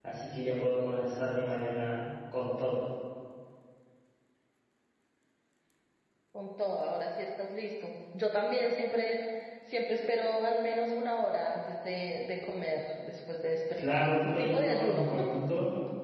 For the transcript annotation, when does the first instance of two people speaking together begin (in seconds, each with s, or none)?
13.8 s